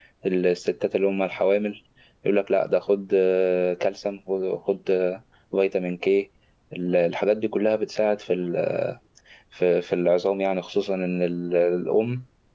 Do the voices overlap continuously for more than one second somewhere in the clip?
No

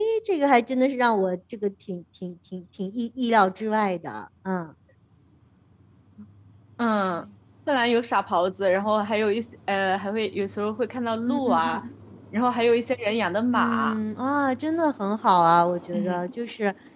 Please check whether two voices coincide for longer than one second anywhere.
No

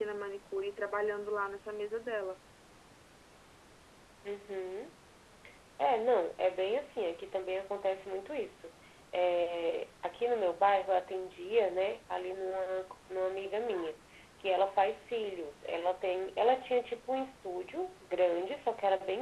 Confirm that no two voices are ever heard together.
Yes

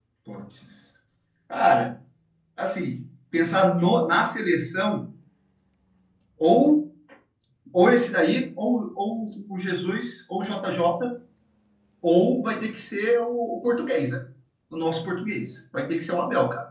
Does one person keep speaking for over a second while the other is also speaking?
No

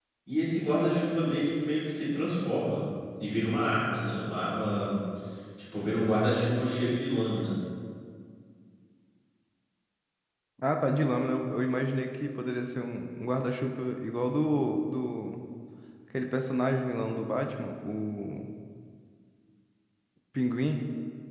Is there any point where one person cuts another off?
No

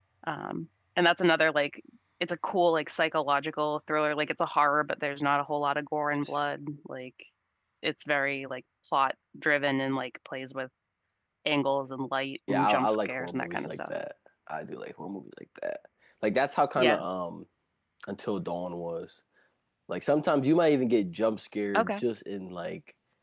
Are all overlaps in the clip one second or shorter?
No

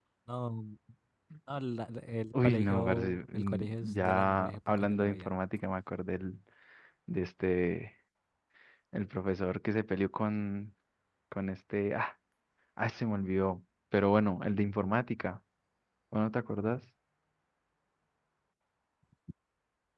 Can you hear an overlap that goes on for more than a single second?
Yes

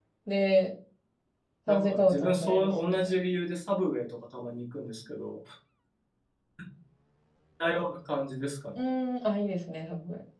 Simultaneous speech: Yes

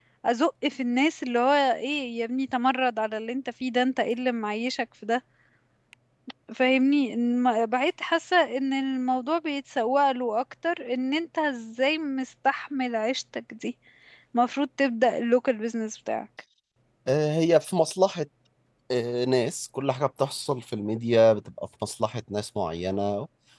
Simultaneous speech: No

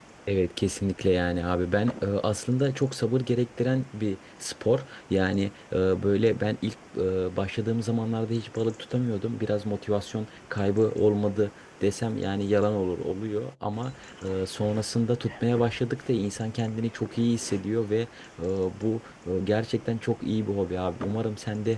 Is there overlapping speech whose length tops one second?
No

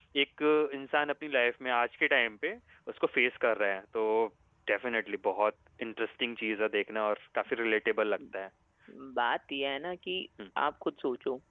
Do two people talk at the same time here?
No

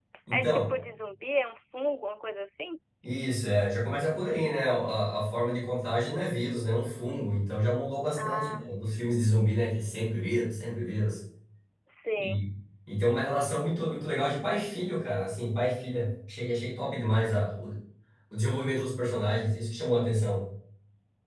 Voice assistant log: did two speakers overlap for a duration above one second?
No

